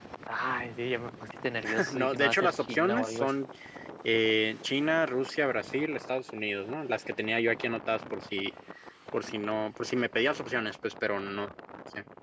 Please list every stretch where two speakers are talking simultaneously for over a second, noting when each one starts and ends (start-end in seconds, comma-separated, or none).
1.9-3.3